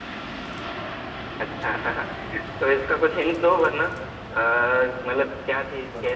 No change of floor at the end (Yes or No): No